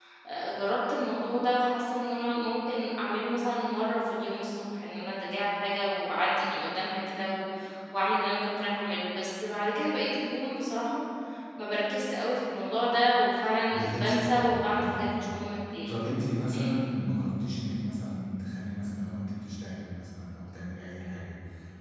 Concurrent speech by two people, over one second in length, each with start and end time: 13.7-15.0

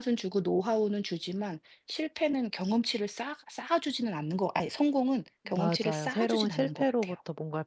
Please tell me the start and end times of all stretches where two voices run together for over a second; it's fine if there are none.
5.5-7.1

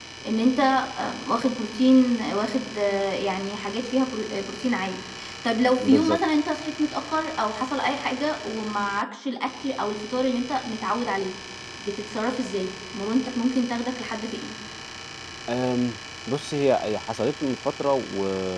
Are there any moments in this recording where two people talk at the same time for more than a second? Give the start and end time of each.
none

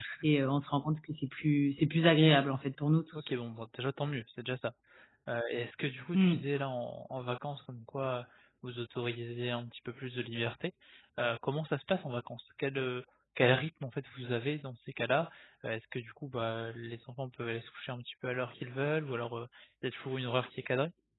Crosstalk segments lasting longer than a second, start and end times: none

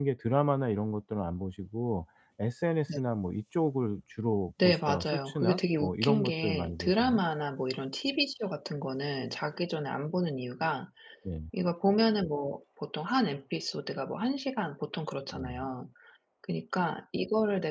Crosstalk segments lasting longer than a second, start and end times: 4.6-7.2

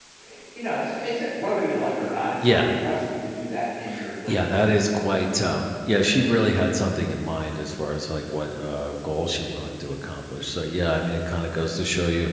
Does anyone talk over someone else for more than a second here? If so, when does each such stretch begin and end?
none

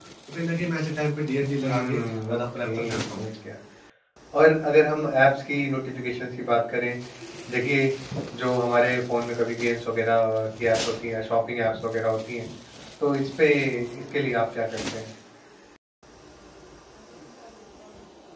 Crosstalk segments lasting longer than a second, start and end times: 1.6-3.2

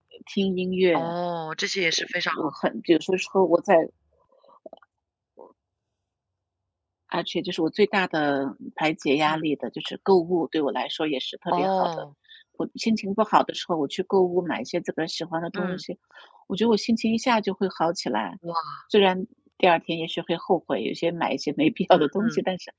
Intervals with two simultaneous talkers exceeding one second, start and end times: none

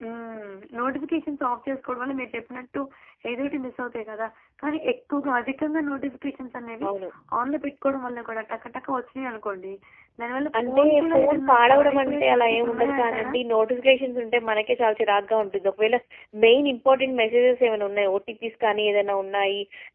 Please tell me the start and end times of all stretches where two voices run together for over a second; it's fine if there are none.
10.7-13.3

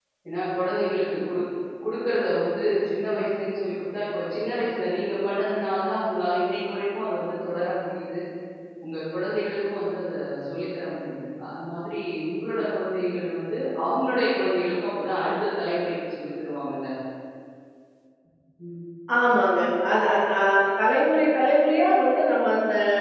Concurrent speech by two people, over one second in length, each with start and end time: none

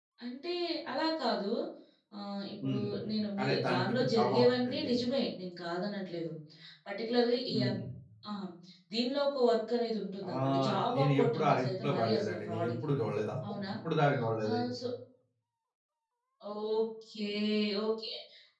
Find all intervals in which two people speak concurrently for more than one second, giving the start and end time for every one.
3.4-4.9, 10.3-12.9

